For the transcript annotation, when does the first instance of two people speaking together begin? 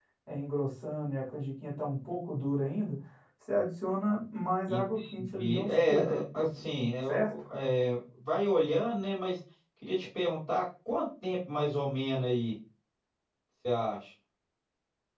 5 s

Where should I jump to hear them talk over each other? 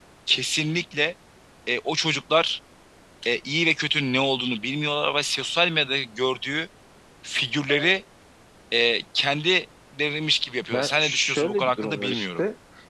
11 s

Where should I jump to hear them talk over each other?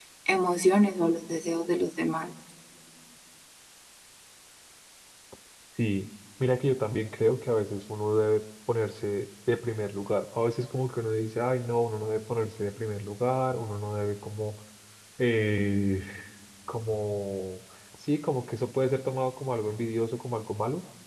none

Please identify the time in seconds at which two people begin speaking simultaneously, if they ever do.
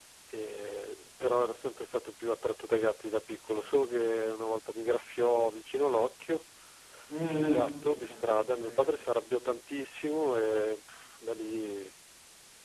7 s

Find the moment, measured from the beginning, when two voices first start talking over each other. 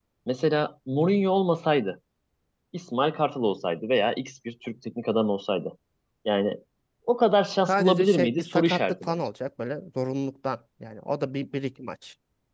8 s

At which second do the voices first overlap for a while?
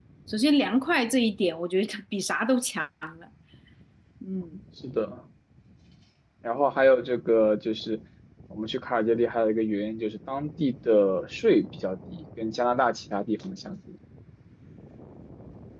none

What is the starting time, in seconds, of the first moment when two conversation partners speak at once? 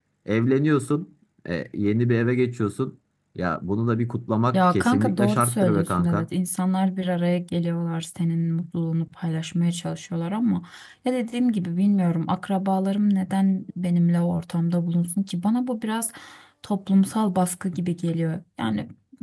5 s

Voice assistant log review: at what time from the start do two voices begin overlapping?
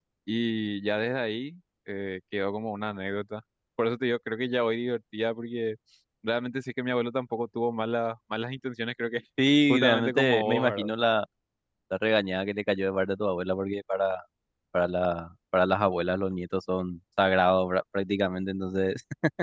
10 s

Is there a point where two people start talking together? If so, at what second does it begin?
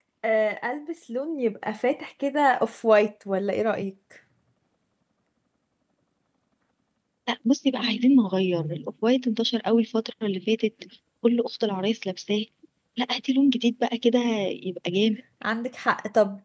none

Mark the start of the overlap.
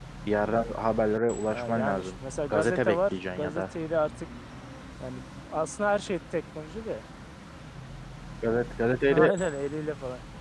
1 s

